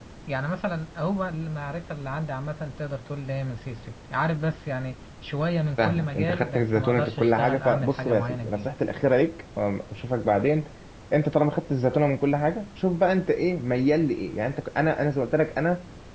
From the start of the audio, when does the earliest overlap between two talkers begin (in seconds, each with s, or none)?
5.8 s